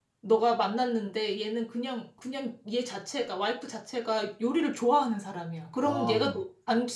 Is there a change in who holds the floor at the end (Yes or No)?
No